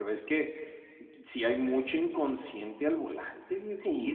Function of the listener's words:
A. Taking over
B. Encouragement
A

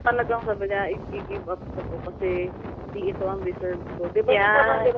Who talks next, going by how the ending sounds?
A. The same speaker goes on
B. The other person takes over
B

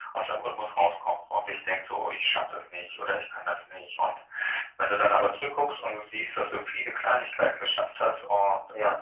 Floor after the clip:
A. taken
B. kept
B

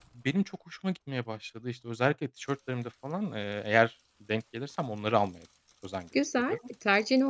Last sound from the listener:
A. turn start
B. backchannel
A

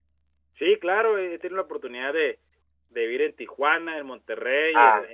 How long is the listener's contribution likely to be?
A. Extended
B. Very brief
A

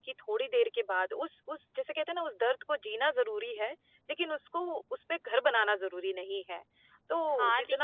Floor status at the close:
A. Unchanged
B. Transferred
B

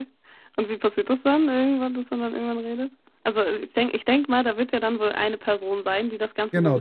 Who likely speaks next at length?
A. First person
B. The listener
B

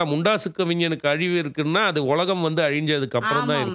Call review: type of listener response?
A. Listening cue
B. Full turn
B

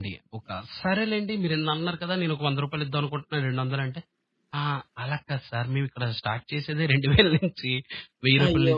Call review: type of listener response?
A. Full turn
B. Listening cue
B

